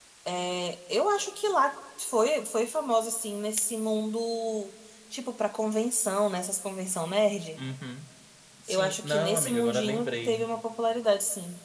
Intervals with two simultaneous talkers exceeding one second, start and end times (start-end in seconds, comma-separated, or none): 8.7-10.5